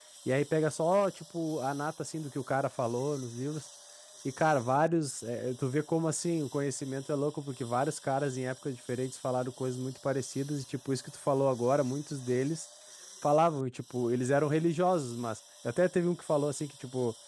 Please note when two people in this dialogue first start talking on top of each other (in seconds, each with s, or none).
none